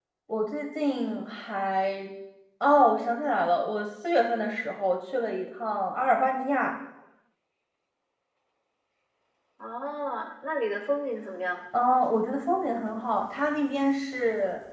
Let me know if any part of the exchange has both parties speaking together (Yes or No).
No